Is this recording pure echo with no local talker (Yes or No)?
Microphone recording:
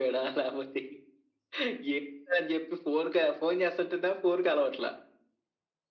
Yes